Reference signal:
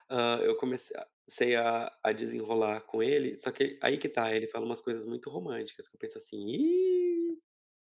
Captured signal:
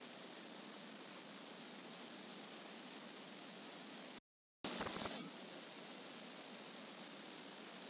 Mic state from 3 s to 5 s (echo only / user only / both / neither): neither